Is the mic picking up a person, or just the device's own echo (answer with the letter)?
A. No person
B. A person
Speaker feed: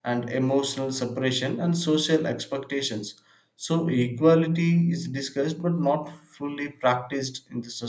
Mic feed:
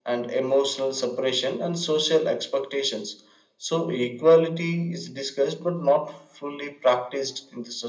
A